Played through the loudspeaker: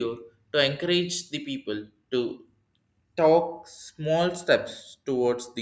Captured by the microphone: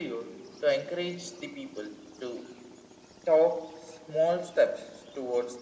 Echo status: present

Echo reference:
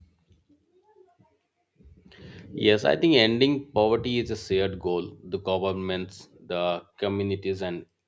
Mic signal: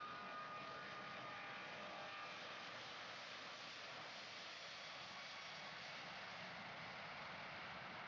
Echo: none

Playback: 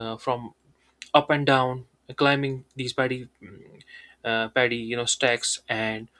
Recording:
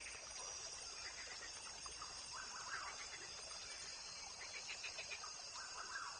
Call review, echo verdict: none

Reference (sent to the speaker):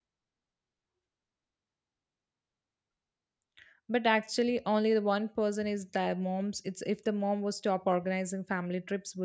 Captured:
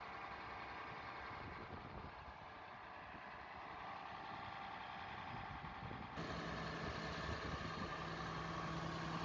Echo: none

